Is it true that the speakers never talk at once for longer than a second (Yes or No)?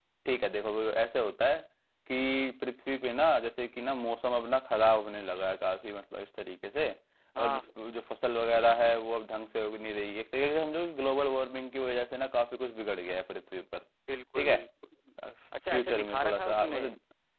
No